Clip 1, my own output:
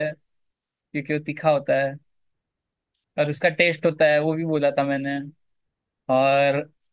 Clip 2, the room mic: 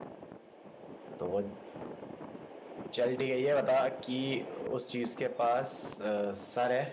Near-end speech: present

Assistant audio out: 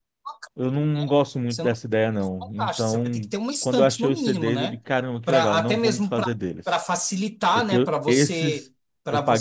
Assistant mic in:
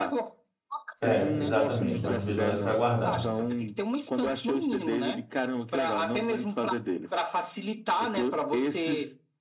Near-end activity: present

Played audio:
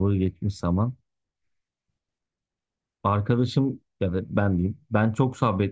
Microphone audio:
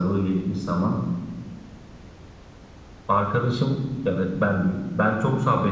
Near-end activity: none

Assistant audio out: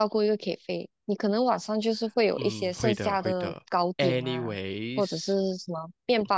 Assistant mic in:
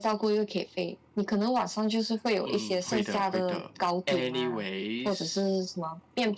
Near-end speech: none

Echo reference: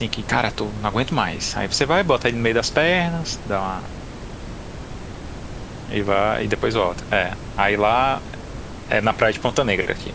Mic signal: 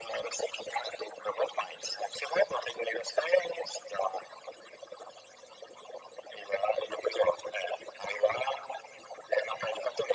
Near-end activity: none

